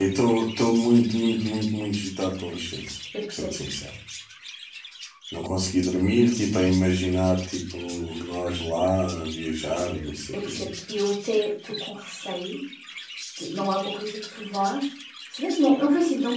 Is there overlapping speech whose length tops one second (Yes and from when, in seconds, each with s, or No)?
No